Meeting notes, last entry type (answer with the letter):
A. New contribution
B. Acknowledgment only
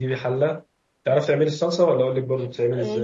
A